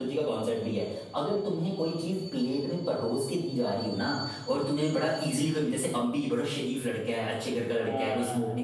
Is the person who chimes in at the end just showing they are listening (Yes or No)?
Yes